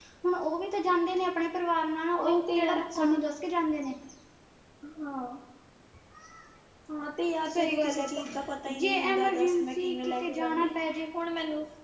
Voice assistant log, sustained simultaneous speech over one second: present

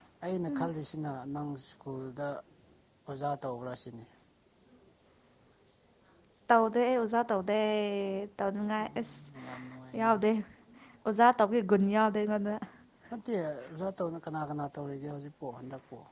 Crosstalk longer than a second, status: none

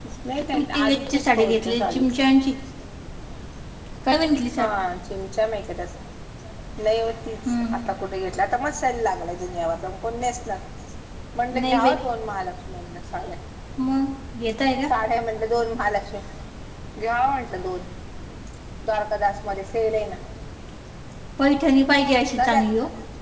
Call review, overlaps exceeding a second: present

